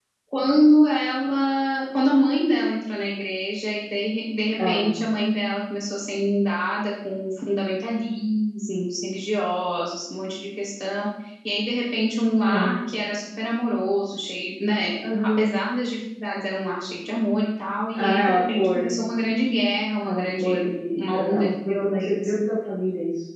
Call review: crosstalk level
present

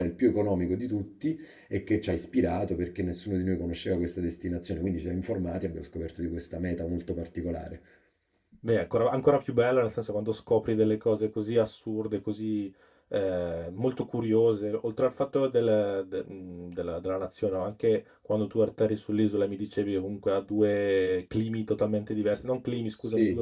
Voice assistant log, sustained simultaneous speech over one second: none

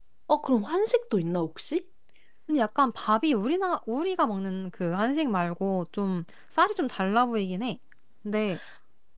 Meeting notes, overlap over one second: none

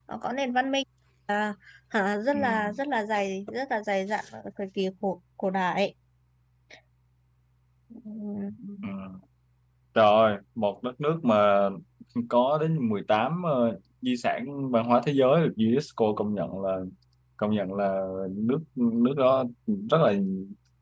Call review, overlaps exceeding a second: none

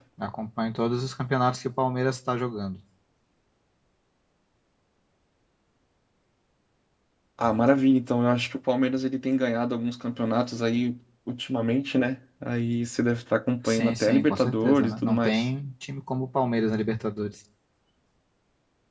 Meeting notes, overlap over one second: present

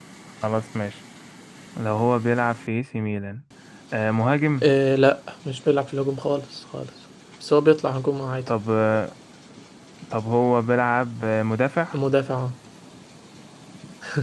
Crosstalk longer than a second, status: none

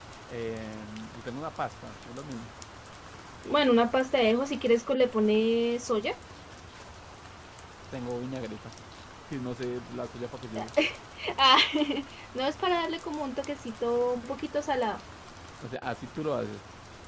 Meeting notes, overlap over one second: none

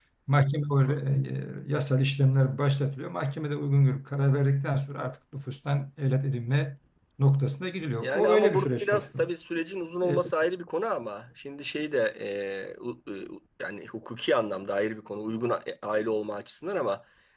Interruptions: present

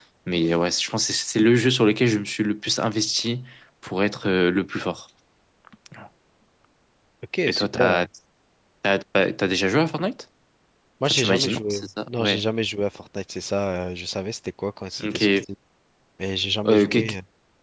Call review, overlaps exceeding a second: present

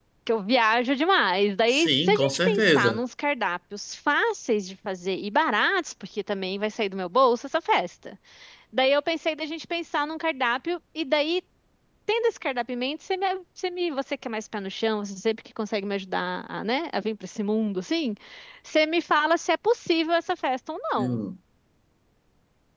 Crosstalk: present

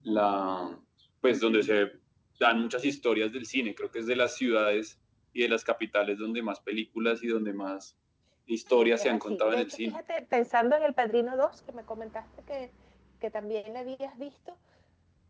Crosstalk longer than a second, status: present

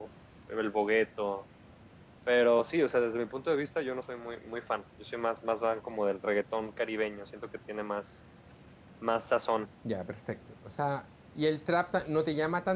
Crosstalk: none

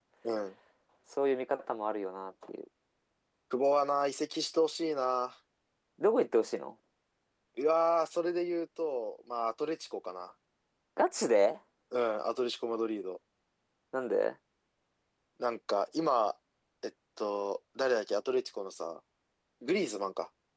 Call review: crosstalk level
none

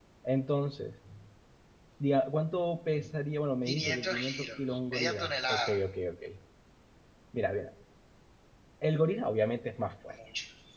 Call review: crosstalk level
present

